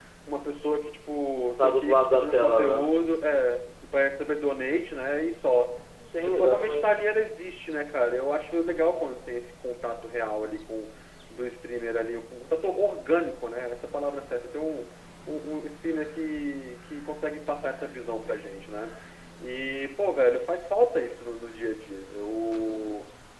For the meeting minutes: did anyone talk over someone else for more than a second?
Yes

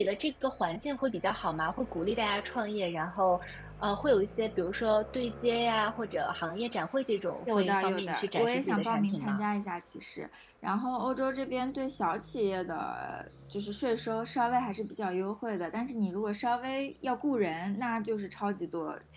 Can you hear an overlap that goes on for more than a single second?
Yes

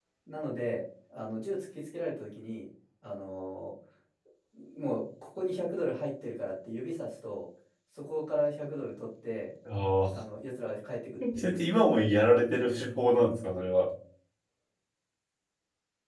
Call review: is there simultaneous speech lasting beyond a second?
No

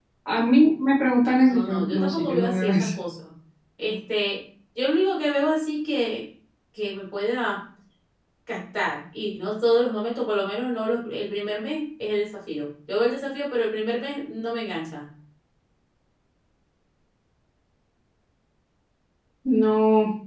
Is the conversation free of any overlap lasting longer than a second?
No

